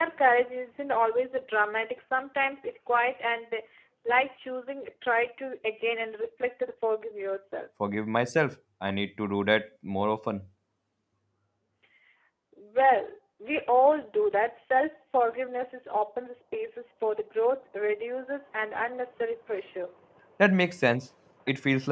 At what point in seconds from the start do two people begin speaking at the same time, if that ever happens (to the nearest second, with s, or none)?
none